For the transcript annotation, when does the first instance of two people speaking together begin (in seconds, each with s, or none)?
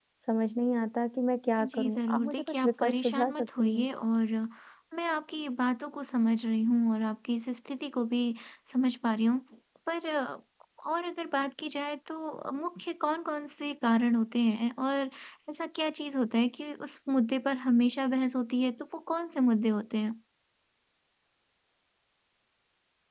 1.6 s